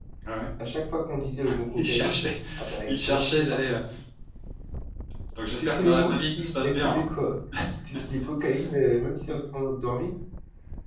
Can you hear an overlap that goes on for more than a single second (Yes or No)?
Yes